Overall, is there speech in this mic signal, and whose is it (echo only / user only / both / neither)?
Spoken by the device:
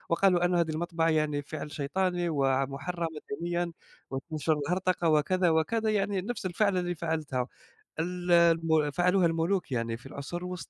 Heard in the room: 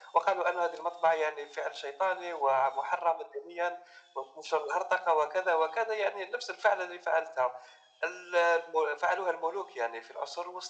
echo only